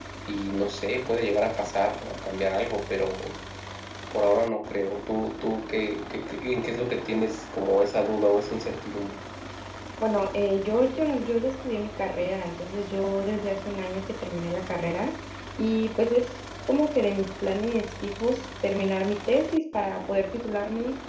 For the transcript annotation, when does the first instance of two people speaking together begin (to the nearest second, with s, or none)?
none